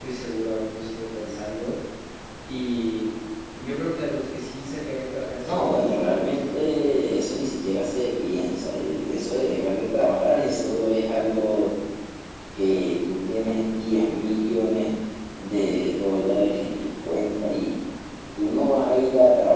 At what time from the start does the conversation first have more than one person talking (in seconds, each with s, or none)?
5.5 s